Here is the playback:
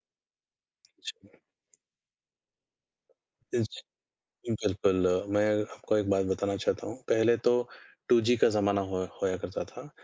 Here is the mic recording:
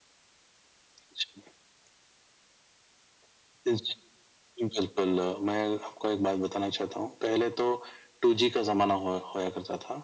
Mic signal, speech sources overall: echo only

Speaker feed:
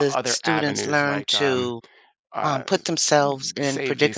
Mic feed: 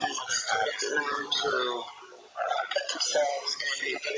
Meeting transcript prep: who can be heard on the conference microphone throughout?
echo only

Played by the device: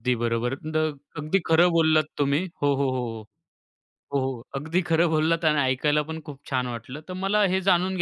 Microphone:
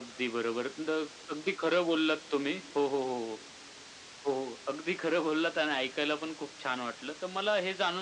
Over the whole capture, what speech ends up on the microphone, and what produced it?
echo only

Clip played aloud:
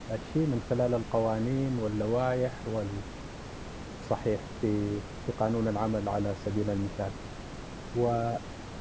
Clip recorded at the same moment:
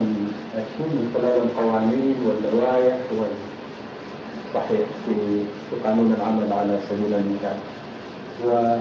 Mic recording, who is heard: echo only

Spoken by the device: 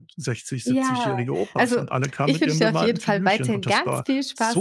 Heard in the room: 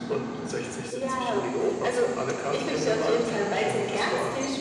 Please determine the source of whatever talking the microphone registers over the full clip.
echo only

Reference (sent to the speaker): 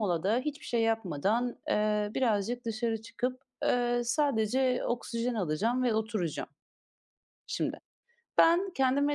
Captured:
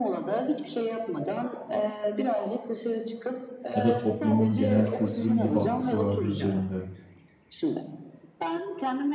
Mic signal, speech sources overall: both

